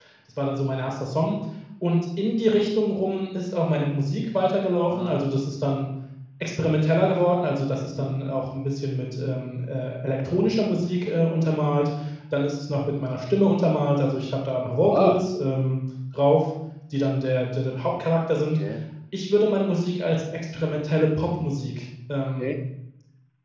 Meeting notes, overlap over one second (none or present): none